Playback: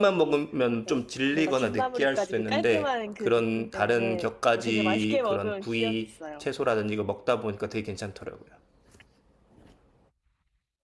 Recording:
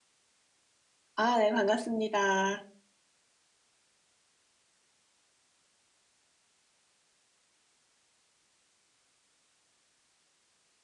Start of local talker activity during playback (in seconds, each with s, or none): 1.2 s